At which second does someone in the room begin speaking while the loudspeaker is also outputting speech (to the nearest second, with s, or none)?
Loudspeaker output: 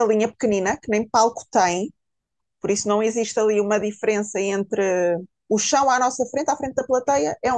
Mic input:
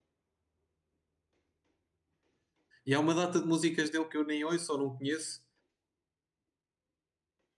3 s